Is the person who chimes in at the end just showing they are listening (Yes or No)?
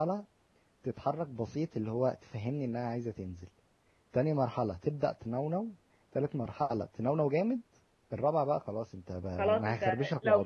No